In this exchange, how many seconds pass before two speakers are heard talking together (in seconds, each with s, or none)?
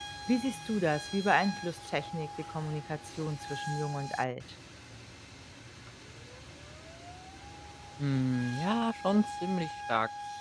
none